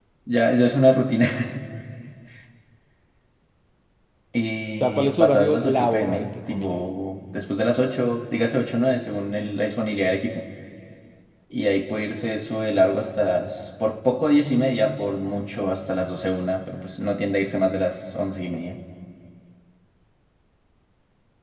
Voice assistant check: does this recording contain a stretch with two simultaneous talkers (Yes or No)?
Yes